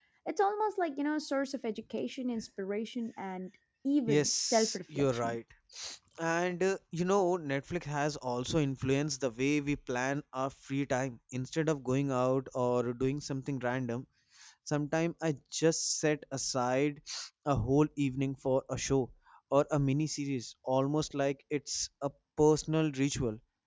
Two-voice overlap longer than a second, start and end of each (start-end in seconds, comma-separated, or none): 4.1-5.4